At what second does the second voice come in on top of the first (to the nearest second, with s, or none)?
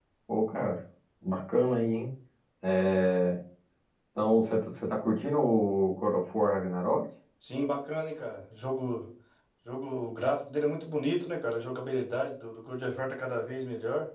none